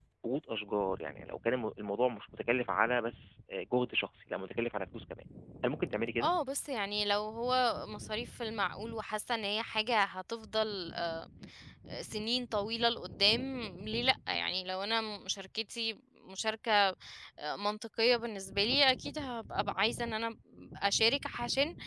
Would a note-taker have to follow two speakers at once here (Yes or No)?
No